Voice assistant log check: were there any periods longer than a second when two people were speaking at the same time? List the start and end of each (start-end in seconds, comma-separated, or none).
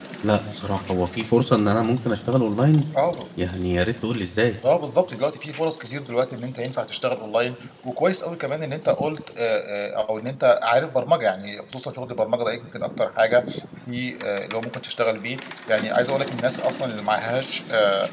none